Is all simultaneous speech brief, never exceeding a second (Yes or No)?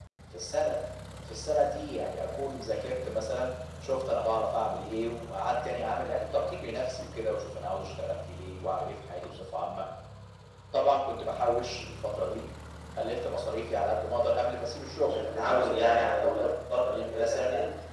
No